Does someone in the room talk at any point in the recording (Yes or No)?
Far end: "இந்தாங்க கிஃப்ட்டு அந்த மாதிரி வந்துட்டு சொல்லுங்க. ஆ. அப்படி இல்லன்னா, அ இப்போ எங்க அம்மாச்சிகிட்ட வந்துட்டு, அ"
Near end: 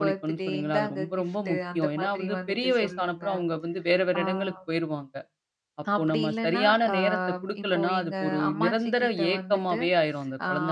Yes